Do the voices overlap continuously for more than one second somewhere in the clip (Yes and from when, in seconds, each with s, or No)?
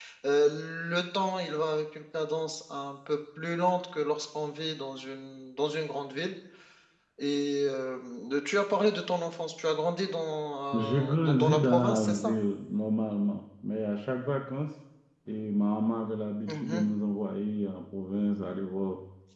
Yes, from 10.7 s